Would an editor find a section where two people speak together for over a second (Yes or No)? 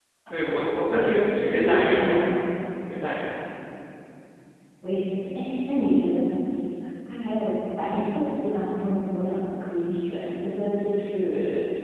Yes